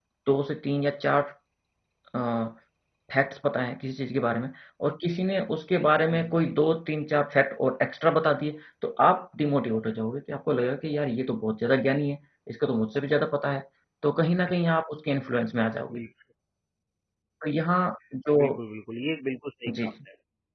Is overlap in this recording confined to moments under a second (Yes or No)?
Yes